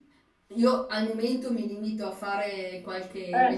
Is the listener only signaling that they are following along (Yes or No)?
Yes